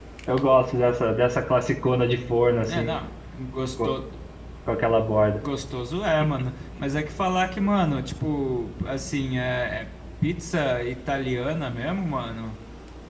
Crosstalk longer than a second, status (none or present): none